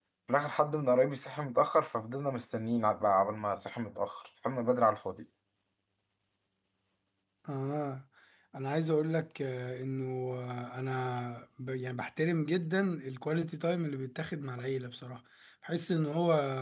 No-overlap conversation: Yes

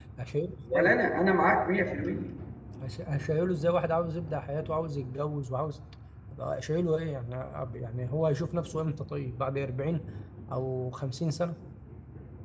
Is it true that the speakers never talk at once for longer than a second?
Yes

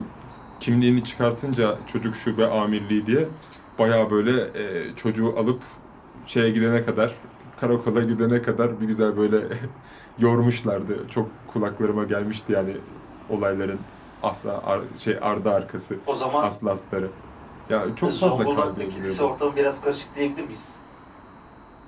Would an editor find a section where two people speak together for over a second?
Yes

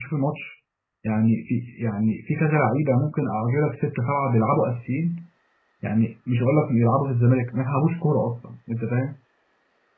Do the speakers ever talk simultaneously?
No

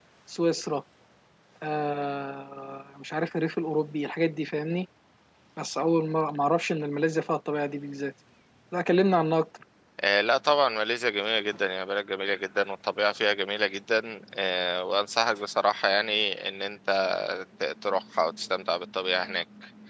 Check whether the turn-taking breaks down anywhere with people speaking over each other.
No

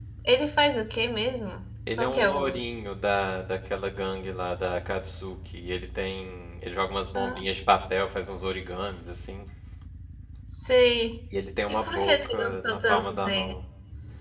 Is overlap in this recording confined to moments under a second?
No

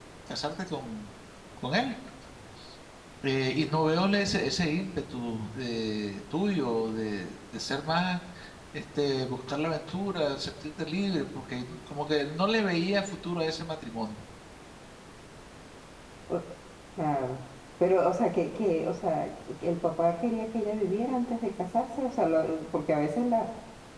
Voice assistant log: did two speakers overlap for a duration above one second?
No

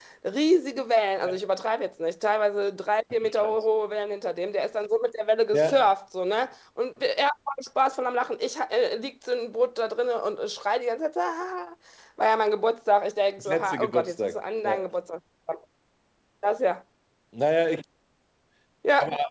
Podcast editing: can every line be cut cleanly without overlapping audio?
No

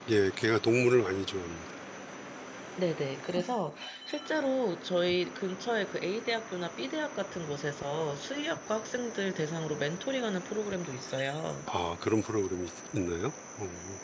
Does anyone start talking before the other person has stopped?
No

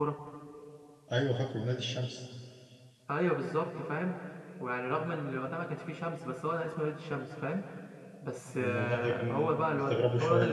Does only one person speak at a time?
No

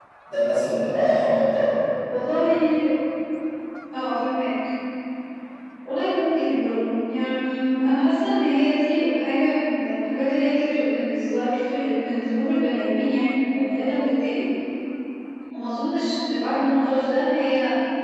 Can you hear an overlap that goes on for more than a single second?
No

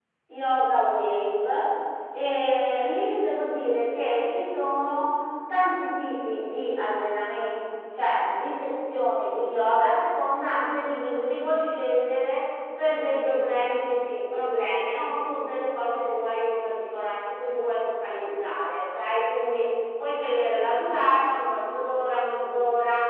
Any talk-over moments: No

